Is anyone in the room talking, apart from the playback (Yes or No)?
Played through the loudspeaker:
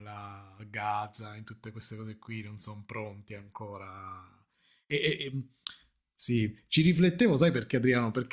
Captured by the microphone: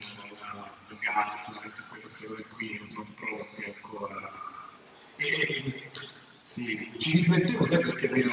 No